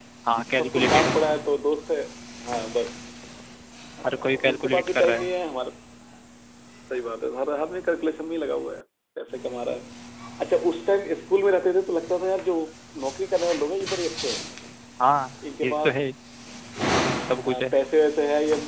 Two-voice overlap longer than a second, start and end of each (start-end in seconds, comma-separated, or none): 4.0-5.3